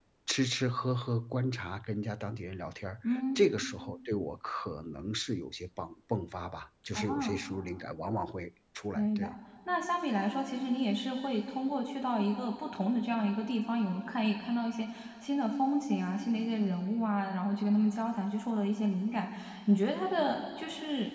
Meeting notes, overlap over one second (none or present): none